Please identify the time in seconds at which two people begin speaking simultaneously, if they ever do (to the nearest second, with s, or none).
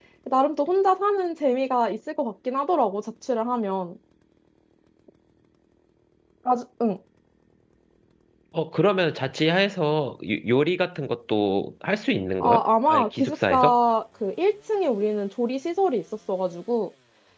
12 s